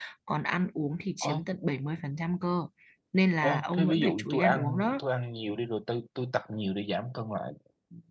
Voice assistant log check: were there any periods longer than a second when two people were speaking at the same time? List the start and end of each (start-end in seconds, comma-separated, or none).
3.4-5.0